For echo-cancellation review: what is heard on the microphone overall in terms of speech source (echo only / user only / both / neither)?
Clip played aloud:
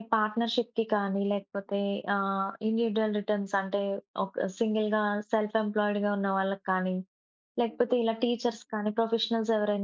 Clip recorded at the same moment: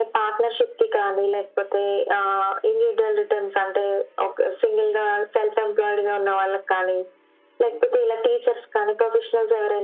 echo only